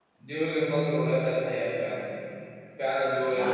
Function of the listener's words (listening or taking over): listening